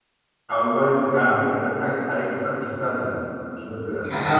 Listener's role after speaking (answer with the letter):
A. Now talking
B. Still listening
A